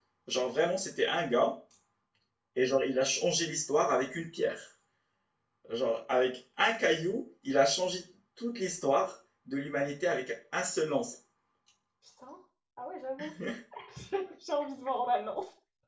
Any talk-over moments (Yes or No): No